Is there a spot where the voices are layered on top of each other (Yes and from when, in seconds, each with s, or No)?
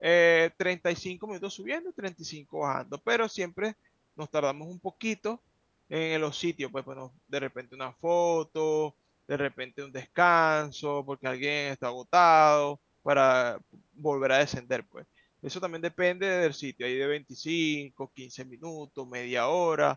No